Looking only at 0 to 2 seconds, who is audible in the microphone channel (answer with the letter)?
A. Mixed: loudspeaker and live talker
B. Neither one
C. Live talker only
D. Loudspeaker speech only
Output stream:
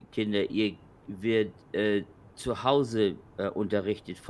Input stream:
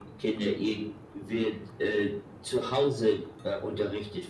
D